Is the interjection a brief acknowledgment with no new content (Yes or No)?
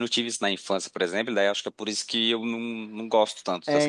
No